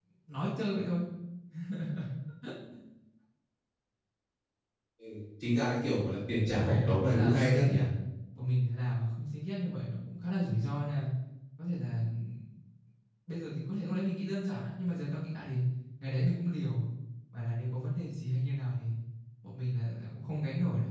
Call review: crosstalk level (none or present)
present